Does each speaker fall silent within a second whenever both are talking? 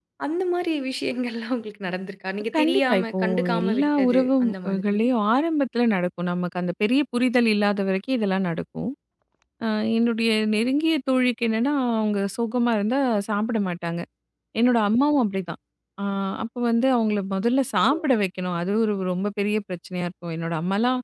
No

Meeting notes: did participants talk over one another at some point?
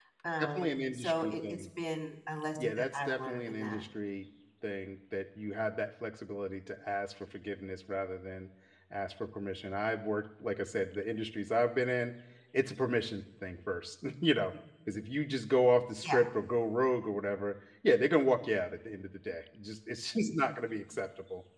Yes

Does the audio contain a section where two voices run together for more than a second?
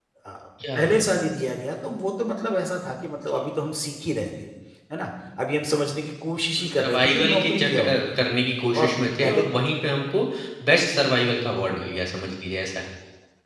Yes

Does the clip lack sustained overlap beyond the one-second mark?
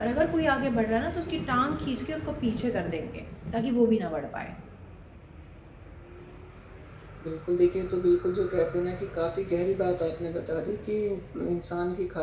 Yes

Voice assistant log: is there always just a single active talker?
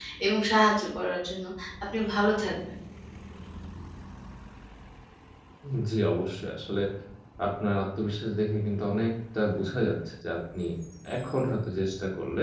Yes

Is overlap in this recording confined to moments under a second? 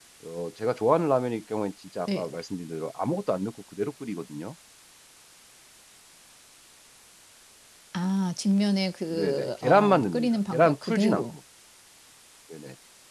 No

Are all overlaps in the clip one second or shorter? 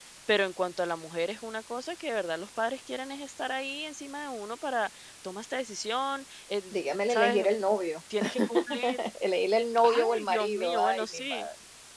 No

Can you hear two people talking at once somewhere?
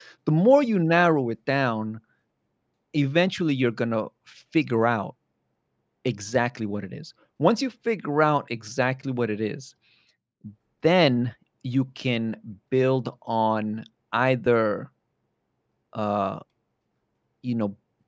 No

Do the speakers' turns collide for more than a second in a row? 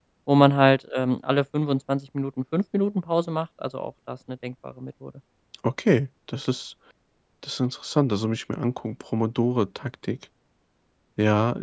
No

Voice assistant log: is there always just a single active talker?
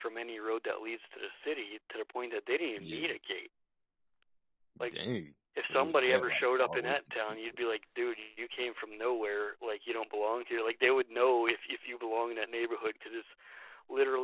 No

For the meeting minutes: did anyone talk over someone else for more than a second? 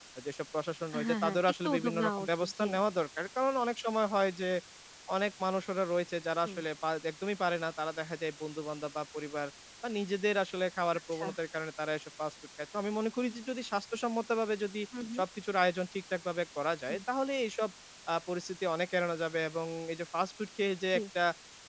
Yes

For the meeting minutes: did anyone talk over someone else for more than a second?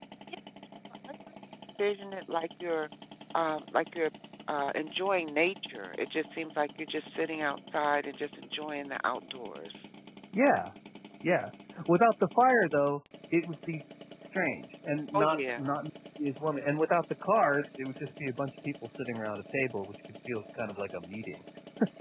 No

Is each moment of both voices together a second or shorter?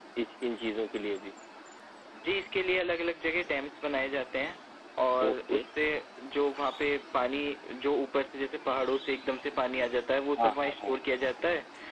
Yes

